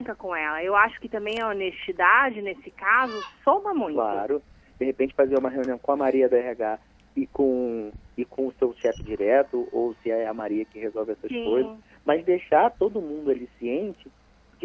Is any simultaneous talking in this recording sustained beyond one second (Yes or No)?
No